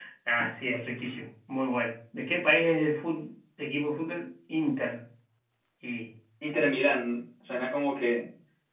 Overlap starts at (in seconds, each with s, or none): none